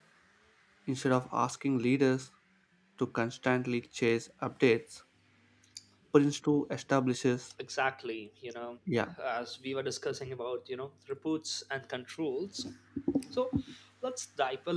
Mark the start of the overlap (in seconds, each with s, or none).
none